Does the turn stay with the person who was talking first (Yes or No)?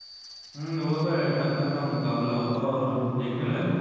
No